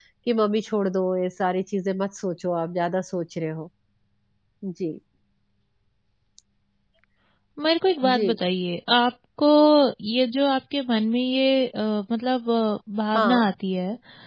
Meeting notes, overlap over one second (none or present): none